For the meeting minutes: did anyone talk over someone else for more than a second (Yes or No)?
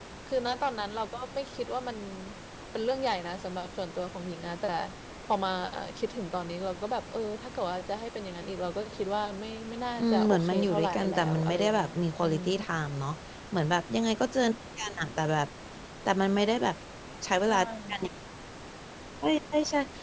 Yes